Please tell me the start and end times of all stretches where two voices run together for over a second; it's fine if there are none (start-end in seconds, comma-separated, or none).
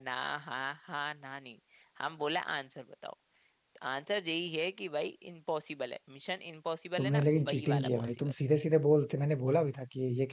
7.0-8.3